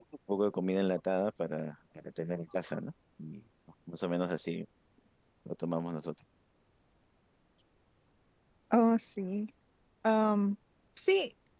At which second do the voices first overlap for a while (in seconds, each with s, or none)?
none